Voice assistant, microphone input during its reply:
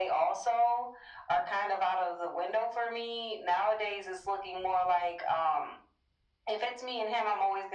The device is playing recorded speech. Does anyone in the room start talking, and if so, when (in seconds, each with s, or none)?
none